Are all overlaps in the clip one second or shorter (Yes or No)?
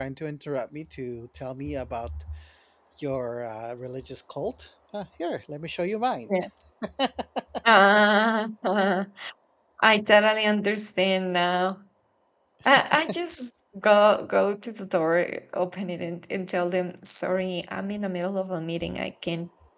Yes